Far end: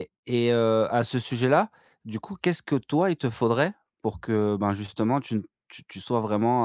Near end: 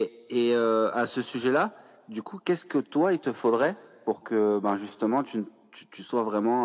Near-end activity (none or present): none